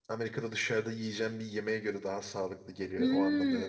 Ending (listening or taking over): taking over